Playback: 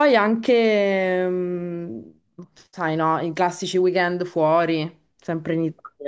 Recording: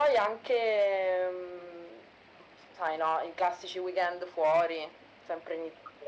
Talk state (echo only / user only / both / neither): echo only